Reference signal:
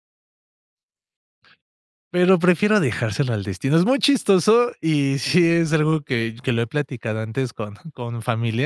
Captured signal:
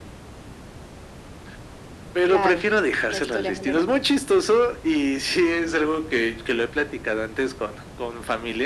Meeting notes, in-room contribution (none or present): present